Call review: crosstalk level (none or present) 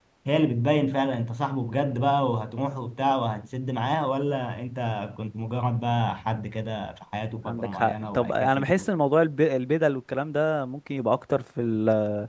present